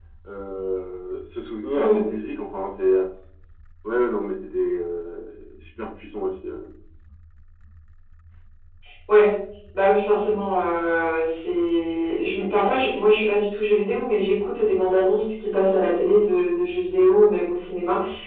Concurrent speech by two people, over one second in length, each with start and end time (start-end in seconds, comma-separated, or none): none